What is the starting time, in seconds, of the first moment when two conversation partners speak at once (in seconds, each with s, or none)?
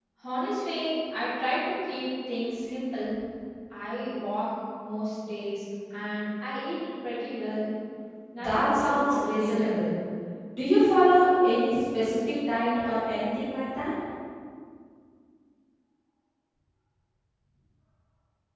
8.4 s